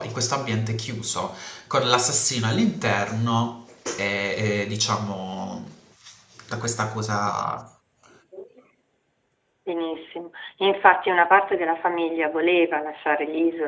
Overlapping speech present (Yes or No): No